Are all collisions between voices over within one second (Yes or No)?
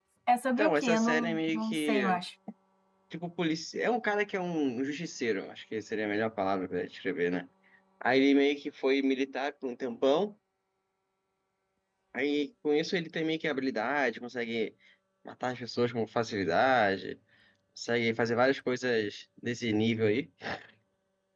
No